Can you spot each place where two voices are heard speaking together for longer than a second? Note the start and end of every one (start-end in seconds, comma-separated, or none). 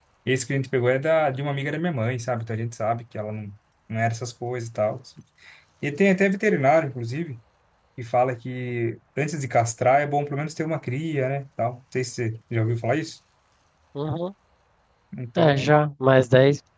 none